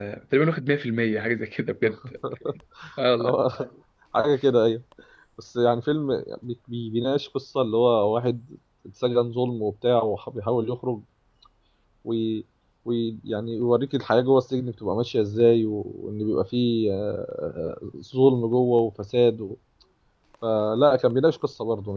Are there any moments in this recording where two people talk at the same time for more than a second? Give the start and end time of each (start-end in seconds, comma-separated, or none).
none